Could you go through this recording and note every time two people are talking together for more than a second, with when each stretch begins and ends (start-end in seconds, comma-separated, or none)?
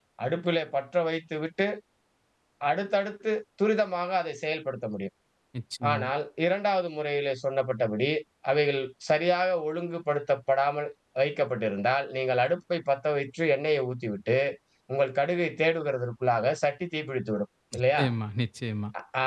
none